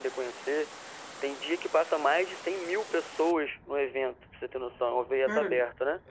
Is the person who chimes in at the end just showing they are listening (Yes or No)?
No